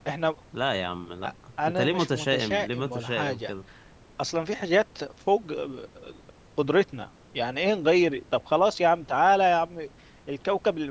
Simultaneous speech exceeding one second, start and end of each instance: 1.6-3.5

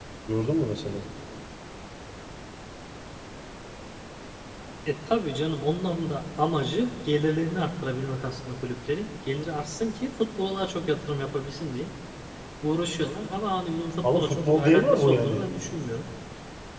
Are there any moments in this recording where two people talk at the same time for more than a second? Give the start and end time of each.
14.0-15.4

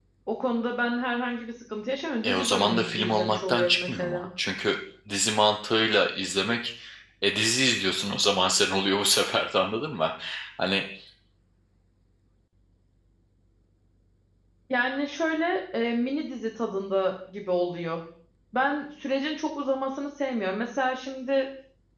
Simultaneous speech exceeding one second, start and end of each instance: 2.2-4.2

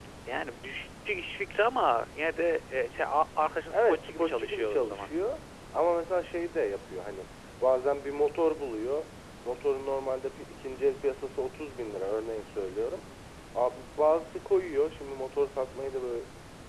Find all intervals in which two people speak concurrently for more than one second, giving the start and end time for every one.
3.7-5.1

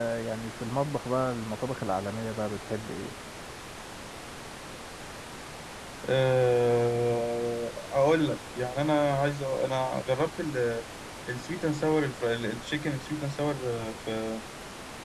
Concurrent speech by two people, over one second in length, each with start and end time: none

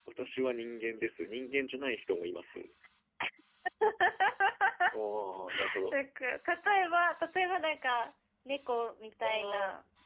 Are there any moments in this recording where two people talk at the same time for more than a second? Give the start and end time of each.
none

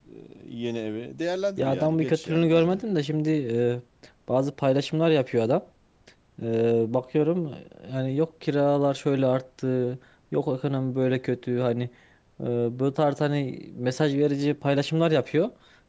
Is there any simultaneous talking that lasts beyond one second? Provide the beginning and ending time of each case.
1.6-2.8

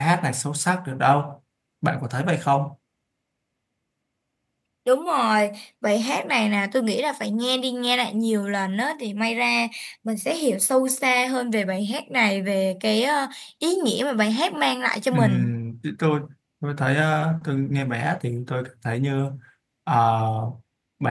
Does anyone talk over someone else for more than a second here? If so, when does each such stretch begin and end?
none

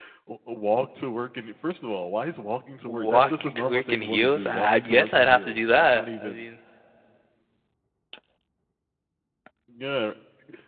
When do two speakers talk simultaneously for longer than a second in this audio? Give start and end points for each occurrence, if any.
2.9-6.4

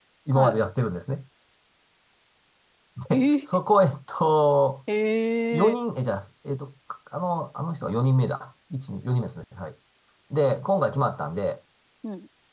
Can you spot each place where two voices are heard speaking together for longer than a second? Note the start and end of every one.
none

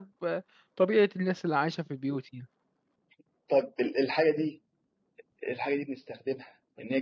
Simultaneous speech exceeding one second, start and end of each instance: none

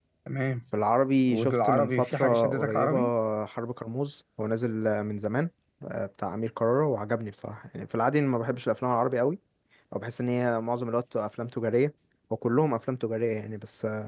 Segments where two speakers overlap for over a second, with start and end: 1.3-3.0

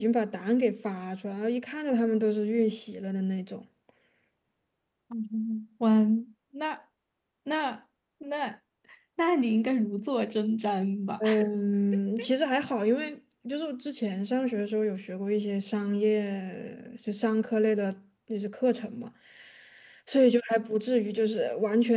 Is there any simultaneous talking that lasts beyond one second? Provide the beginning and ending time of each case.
none

